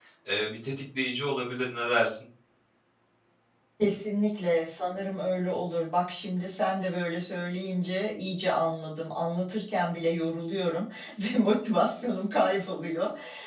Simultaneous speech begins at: none

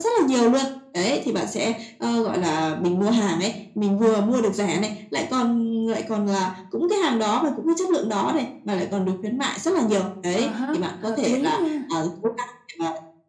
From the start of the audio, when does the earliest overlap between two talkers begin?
10.4 s

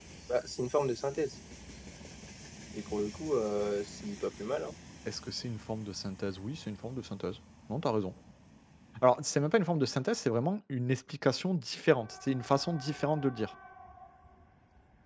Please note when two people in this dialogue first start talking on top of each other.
none

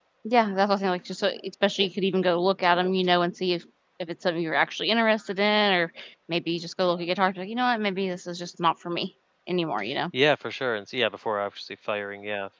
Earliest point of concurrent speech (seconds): none

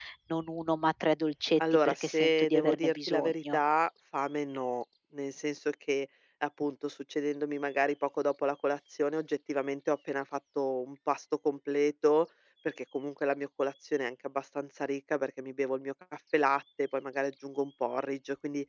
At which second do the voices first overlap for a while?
1.8 s

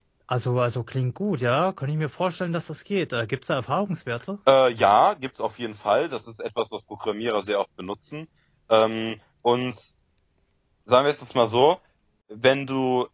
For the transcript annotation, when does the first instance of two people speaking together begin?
none

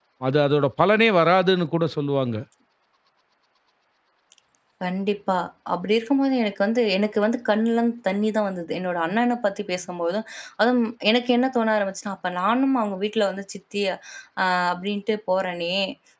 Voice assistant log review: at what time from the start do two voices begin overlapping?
none

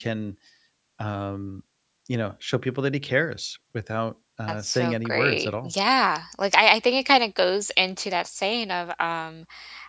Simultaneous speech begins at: 4.5 s

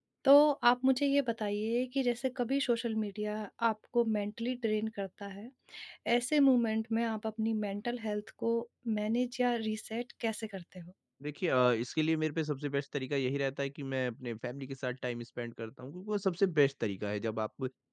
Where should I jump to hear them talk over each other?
none

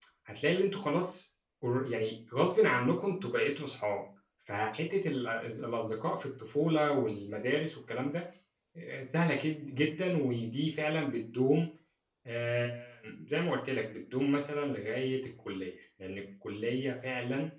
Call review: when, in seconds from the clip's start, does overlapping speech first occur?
none

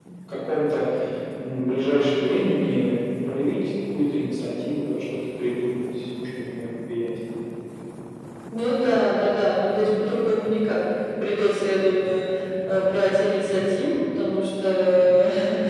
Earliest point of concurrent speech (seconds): none

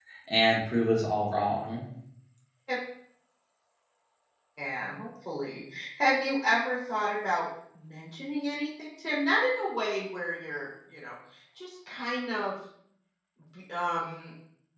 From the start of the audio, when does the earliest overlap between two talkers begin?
none

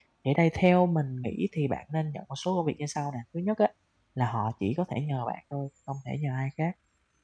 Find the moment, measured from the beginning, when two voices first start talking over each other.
none

